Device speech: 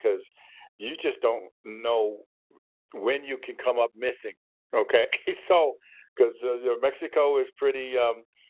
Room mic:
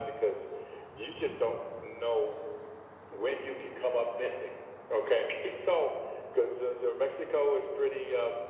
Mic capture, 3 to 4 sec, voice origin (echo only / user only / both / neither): echo only